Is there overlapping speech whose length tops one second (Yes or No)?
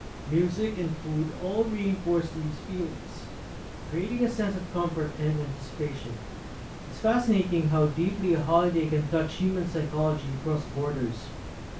No